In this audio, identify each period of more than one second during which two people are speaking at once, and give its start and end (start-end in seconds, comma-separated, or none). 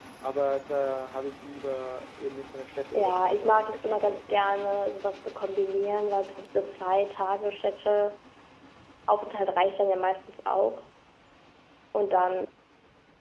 2.9-4.6